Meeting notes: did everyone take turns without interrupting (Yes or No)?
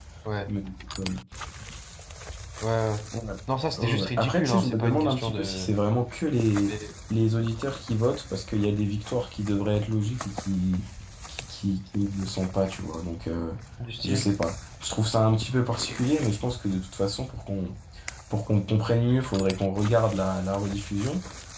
No